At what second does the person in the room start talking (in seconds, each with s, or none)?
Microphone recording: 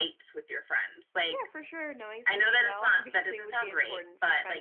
1.3 s